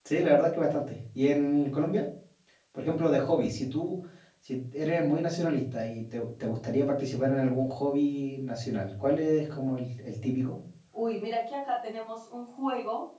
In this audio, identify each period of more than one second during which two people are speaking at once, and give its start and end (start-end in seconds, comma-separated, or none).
none